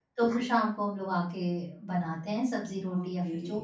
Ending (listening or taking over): taking over